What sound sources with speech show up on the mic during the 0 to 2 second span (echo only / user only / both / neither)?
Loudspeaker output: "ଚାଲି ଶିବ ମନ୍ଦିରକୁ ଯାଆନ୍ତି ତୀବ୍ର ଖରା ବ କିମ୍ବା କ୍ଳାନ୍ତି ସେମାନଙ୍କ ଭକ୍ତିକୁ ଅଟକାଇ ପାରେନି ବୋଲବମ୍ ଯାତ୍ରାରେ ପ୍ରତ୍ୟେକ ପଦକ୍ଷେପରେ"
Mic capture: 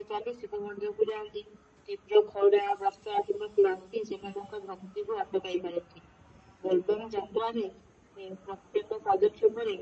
echo only